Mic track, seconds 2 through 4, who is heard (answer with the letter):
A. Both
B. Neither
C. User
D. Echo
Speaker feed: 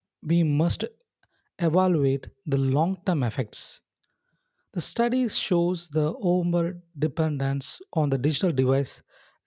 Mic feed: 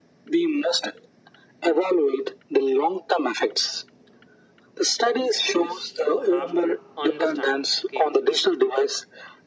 D